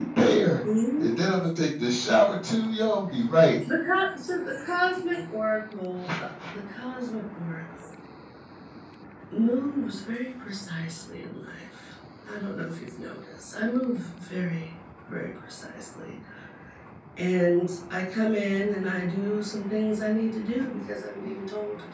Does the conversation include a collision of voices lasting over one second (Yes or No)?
No